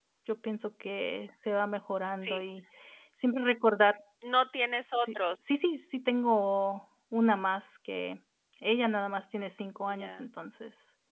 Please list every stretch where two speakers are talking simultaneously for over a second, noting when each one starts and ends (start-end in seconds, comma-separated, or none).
none